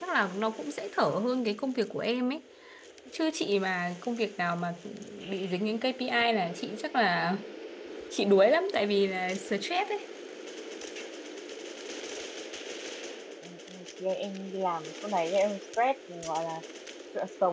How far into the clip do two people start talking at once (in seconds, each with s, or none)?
none